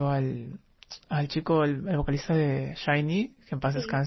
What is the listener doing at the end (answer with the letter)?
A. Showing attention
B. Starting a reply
B